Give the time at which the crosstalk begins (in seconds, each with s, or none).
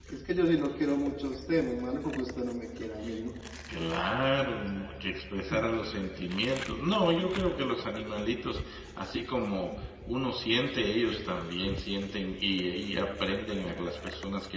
none